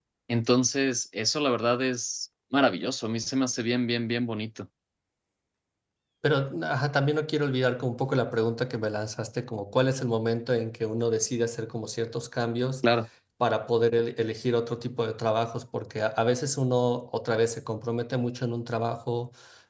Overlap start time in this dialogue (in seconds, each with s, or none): none